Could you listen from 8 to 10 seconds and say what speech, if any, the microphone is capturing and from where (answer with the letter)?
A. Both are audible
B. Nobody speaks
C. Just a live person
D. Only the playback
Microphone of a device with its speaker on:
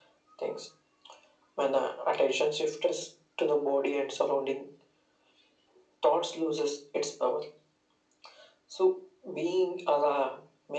D